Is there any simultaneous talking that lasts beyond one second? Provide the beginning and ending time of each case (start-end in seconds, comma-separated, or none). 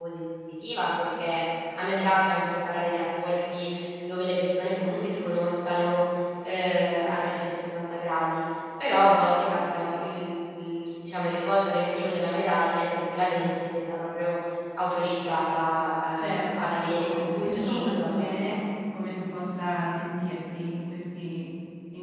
16.2-18.5